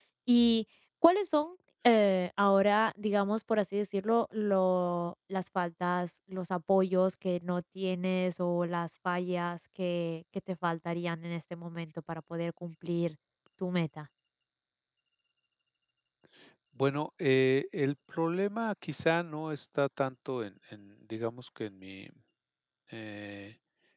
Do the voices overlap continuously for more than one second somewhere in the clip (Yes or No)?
No